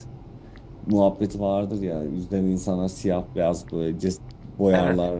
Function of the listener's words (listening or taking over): listening